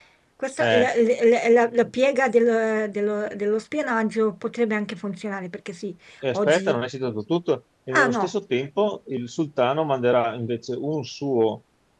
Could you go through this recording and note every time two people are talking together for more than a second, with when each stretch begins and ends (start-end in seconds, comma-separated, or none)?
none